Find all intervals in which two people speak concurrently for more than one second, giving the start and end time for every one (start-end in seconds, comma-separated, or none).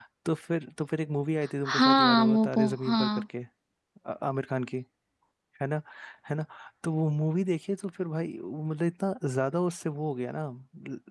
1.7-3.1